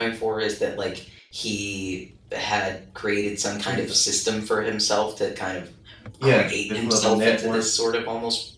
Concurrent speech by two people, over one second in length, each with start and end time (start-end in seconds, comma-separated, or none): 6.2-7.6